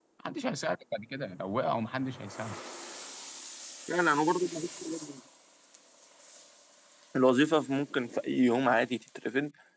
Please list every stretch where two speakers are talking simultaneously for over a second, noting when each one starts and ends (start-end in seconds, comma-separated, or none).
none